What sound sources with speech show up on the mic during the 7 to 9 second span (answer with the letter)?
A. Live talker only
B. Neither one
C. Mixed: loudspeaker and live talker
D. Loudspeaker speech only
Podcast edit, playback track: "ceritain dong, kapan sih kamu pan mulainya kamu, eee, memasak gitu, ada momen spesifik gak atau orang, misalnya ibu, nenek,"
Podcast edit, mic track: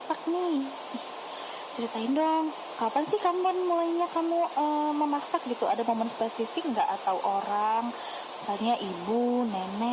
D